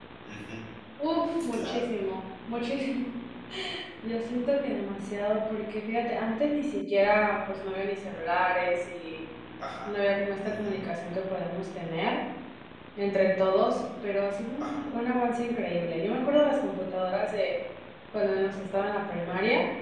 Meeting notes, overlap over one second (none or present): none